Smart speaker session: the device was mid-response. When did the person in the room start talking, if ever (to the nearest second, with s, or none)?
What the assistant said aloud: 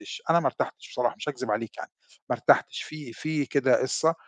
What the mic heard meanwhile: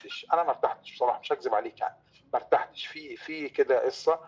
none